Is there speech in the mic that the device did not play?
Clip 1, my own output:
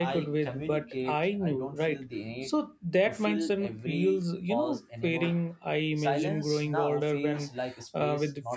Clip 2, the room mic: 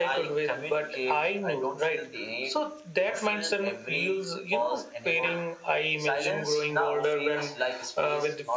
No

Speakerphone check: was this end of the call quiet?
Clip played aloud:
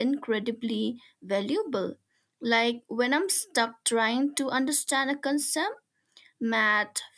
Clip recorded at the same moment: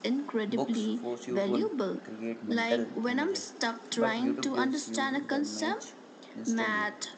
No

